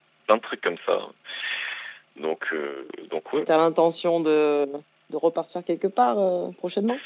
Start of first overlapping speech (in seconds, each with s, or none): none